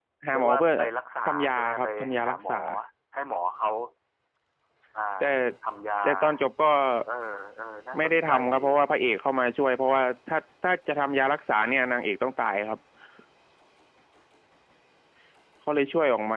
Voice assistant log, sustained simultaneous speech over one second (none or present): present